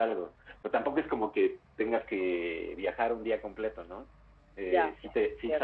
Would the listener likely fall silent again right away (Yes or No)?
Yes